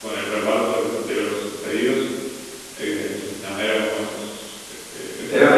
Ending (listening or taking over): taking over